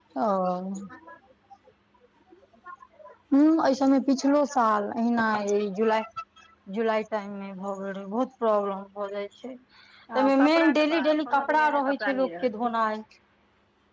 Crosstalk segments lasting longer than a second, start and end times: 10.2-12.5

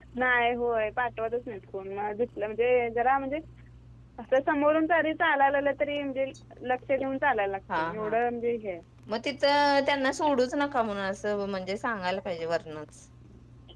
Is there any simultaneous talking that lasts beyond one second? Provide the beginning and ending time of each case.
none

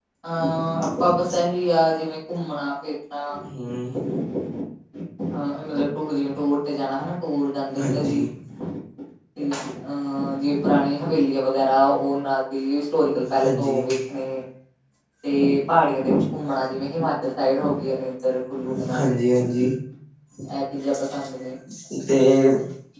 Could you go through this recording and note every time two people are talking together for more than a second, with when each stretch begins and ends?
none

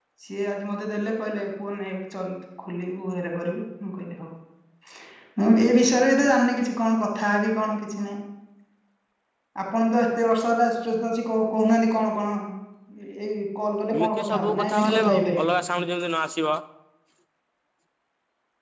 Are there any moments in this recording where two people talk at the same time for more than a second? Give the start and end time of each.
13.9-15.5

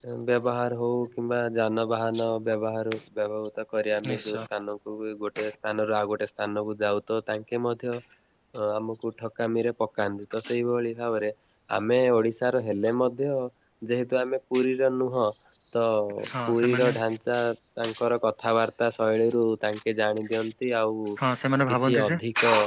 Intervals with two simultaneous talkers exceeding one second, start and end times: none

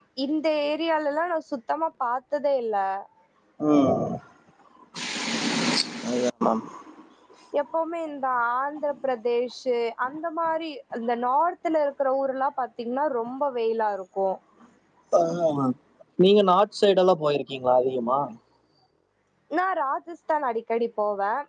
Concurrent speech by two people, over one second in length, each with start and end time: none

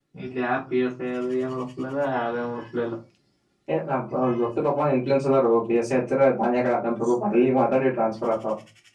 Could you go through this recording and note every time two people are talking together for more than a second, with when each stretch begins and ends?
none

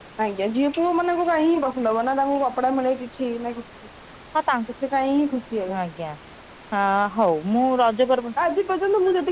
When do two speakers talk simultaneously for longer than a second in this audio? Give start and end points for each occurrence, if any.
none

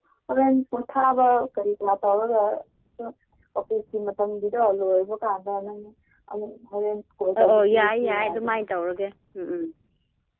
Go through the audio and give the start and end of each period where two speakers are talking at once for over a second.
7.4-8.6

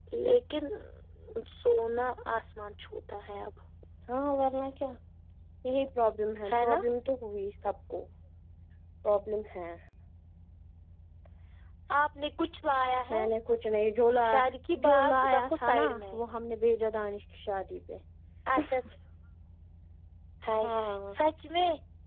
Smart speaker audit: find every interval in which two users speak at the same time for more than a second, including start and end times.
14.8-16.2

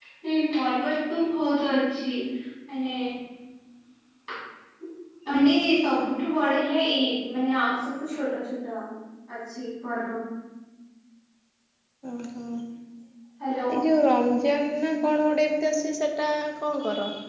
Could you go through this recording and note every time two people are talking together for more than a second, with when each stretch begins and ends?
none

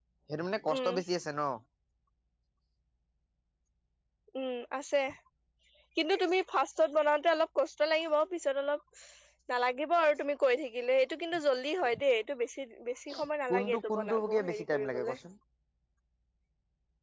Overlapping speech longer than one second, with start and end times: 13.5-15.2

